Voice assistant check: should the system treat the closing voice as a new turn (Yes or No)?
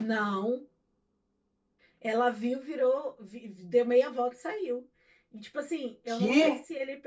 No